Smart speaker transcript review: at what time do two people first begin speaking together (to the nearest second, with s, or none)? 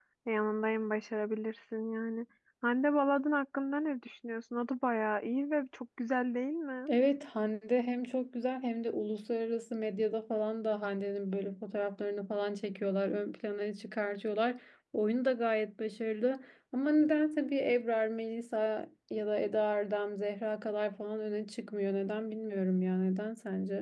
none